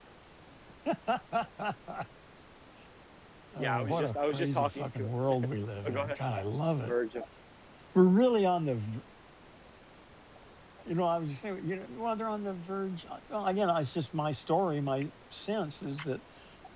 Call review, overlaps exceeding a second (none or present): present